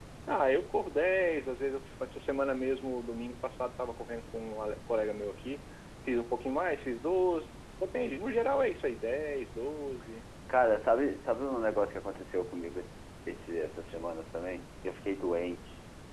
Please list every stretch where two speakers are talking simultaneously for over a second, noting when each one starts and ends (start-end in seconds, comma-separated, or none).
none